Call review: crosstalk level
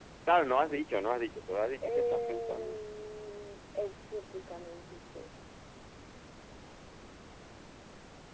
present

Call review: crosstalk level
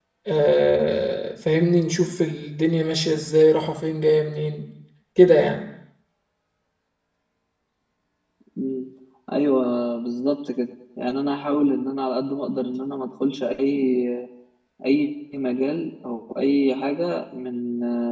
none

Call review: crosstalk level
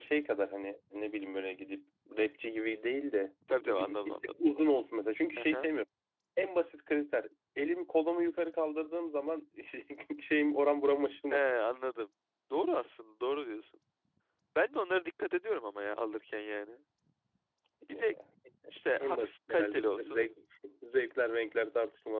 present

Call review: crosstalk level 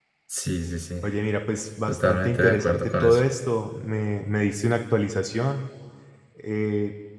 present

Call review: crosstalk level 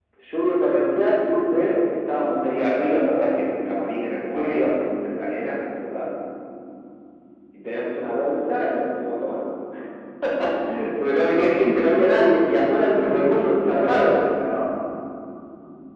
present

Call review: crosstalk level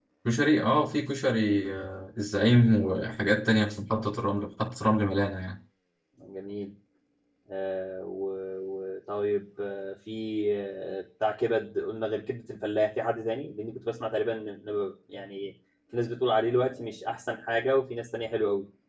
none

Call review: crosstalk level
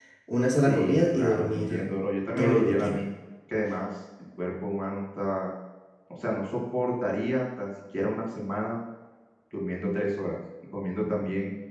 present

